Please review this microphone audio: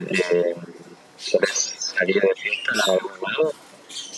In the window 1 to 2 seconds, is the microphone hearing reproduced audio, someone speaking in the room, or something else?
echo only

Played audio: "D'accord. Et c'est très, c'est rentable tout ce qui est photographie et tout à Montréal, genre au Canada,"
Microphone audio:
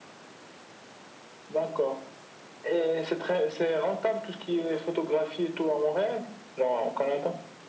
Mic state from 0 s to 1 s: neither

